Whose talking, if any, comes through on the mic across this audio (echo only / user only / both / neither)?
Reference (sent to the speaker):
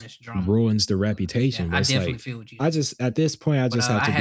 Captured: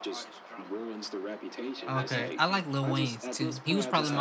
both